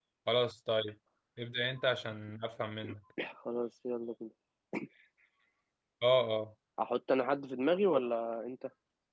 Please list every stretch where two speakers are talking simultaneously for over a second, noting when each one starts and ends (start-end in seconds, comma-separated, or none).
none